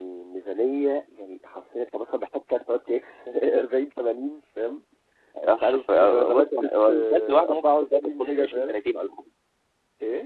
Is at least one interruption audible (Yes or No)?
Yes